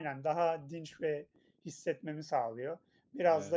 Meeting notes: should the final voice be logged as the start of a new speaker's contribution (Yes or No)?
No